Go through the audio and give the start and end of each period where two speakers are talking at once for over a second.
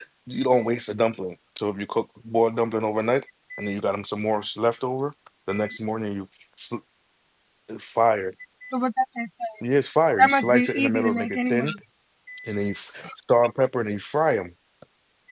10.2-11.6

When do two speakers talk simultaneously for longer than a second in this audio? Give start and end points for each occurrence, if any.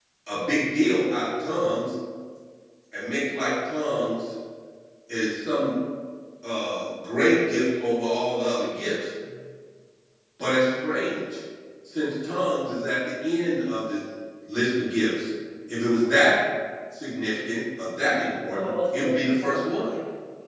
18.5-19.9

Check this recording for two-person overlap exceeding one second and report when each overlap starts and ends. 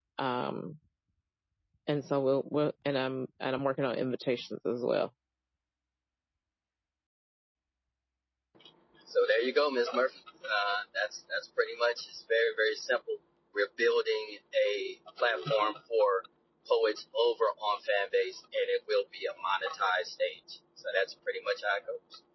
none

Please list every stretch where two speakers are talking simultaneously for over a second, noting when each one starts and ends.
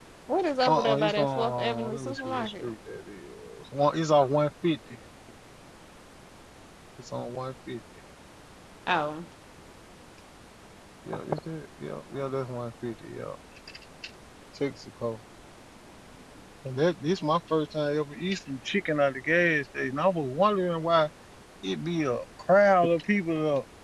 0.7-2.7

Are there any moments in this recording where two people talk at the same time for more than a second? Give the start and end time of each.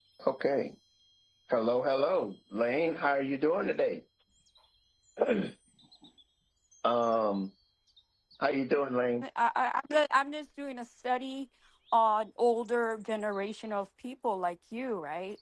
none

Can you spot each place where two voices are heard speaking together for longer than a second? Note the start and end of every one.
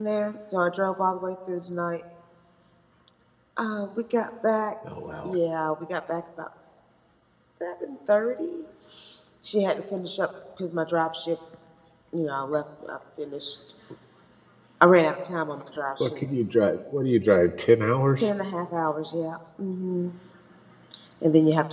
none

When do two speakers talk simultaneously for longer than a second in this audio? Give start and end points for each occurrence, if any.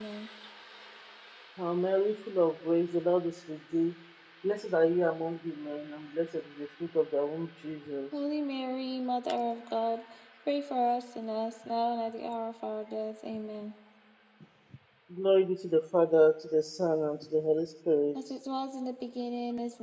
none

